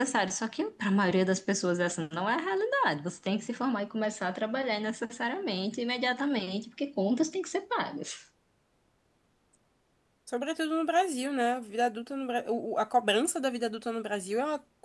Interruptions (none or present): none